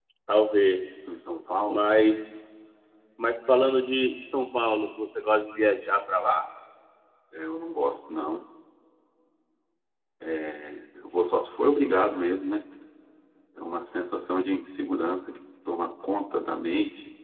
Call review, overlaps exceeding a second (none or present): none